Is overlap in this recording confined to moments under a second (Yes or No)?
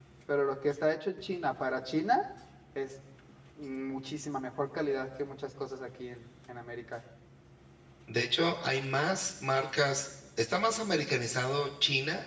Yes